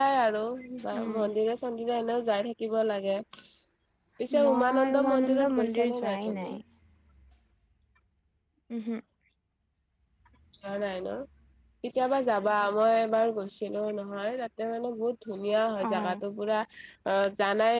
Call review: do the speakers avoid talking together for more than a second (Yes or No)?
No